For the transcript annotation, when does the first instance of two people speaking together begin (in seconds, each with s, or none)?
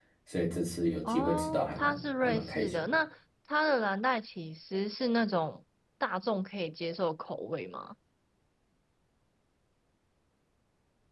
1.0 s